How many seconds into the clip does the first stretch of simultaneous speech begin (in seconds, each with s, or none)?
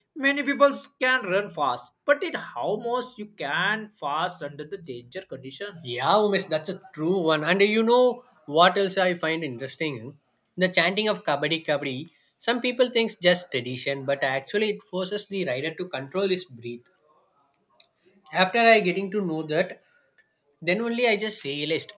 none